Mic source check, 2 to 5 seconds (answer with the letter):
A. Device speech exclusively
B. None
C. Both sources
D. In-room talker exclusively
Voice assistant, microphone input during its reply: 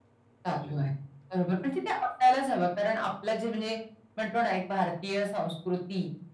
A